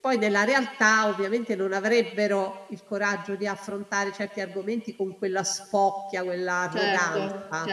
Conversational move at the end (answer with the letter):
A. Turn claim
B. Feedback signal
A